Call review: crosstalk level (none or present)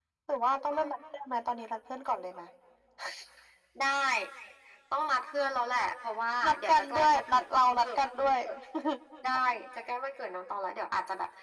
present